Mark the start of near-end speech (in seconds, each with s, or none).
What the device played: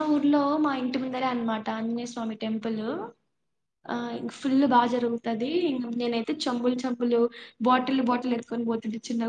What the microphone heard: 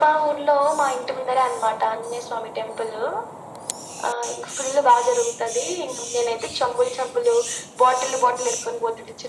none